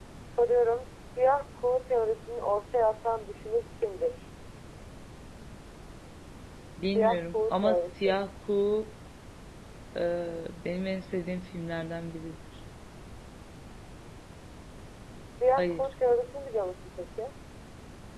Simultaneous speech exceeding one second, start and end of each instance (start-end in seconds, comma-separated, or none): 6.9-8.2